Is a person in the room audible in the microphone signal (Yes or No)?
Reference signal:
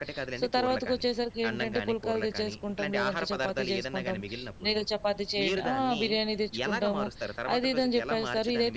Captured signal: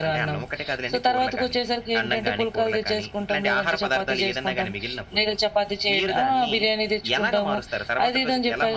No